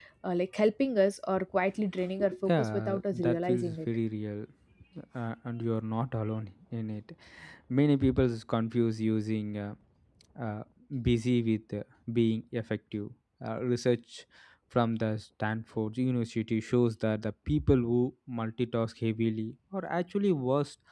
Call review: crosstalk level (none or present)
present